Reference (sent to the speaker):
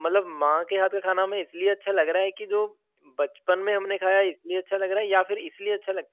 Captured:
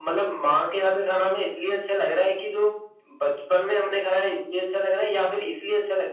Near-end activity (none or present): none